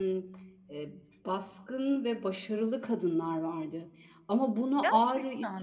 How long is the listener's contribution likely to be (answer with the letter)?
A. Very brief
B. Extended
A